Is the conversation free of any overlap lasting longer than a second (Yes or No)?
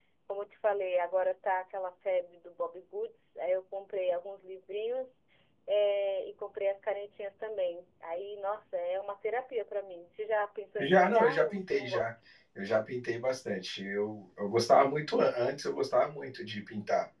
No